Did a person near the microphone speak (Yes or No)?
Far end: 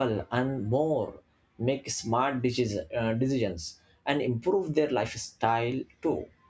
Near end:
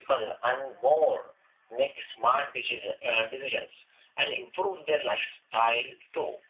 No